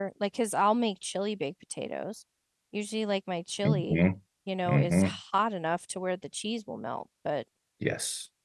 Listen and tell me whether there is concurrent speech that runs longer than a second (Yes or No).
No